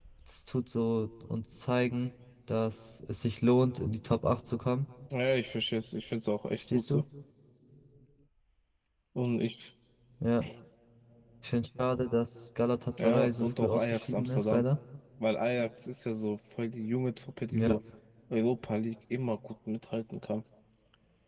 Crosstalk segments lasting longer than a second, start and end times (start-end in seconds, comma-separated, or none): 13.0-14.7